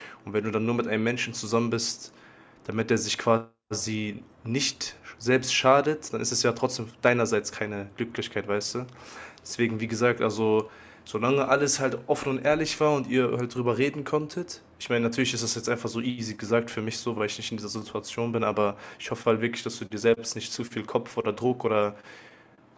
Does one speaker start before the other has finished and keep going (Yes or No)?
No